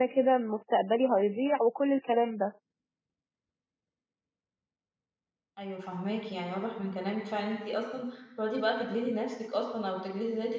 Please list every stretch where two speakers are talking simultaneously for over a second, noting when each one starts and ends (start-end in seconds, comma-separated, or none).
none